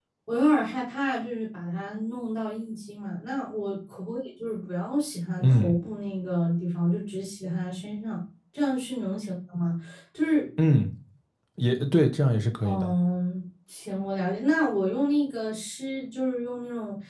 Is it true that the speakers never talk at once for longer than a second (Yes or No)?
Yes